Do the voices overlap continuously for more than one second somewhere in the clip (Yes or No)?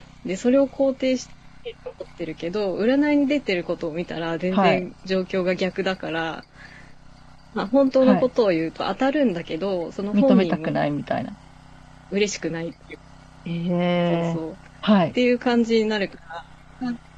No